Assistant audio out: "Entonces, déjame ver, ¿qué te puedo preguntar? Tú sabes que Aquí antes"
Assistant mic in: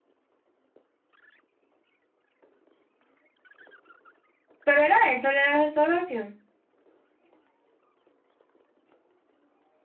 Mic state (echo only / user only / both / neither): user only